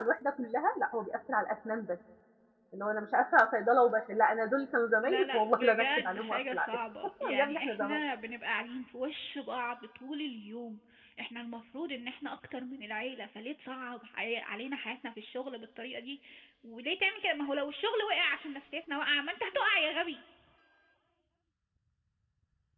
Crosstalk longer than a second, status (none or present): present